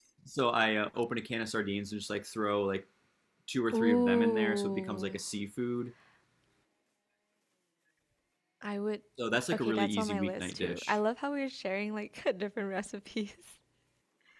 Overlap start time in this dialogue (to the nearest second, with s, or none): 4 s